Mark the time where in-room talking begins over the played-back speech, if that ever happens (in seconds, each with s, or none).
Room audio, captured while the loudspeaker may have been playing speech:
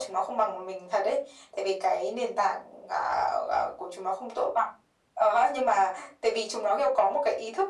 none